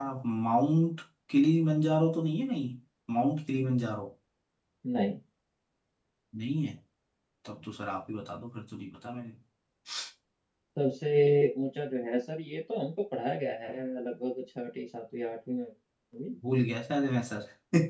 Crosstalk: none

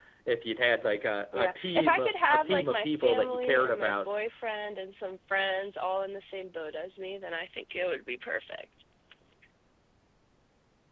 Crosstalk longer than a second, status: present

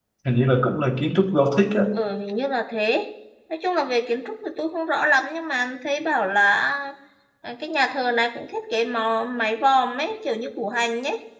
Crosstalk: none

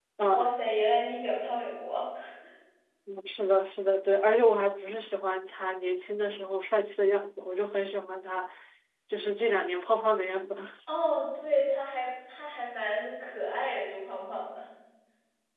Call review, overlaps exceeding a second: none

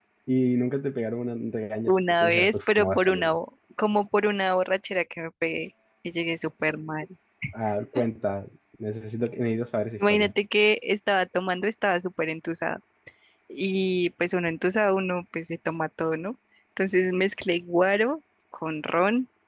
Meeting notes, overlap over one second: present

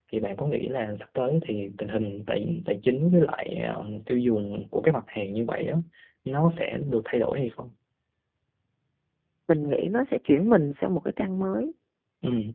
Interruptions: none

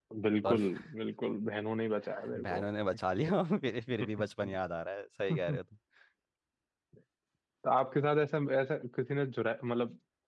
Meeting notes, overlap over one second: none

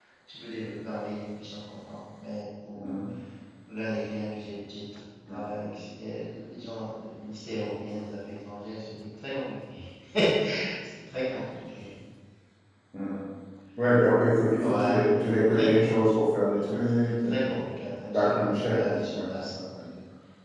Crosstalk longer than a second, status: present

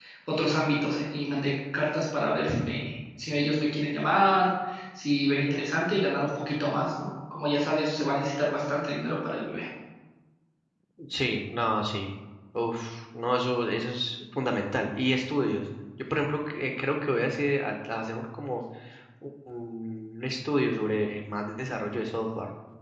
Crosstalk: none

